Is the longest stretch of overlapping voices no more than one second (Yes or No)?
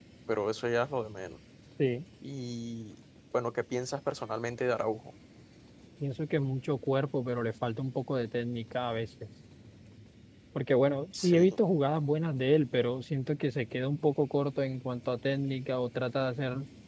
Yes